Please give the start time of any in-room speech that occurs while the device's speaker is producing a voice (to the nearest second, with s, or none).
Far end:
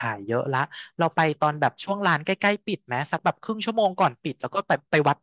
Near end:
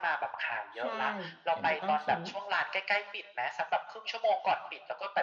1 s